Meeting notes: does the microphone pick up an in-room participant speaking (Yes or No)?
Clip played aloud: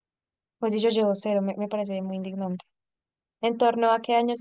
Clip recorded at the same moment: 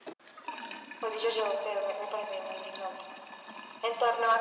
No